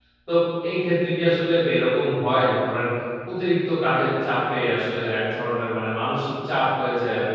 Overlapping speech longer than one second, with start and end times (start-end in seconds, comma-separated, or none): none